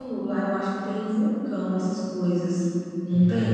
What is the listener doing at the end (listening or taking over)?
taking over